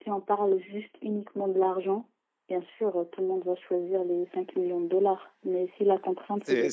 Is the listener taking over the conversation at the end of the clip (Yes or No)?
Yes